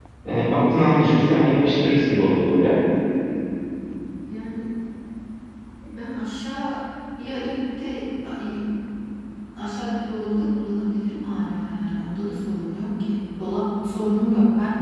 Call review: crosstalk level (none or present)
none